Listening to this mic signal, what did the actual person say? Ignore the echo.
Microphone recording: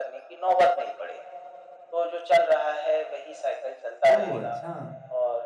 ओह! अच्छा।

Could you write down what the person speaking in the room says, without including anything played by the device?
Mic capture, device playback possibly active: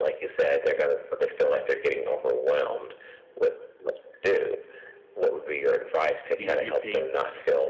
you get your paints,

